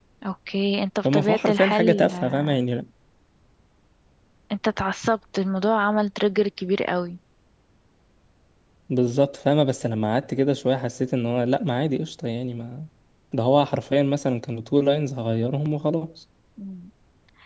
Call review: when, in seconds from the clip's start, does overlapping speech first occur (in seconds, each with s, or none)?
1.0 s